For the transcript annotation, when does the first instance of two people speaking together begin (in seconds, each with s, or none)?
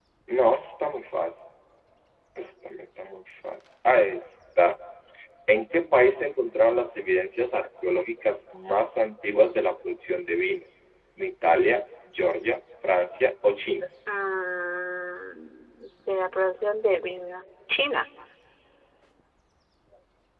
none